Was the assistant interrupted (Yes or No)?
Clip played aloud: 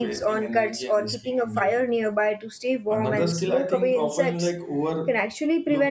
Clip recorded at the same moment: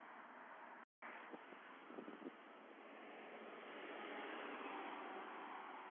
No